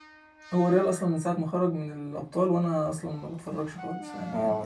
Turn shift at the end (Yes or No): Yes